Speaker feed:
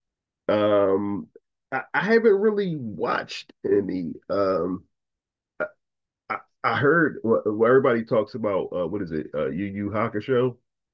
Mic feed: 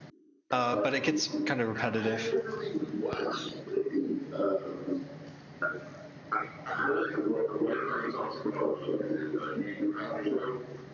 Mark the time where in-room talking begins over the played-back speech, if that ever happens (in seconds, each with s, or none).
0.5 s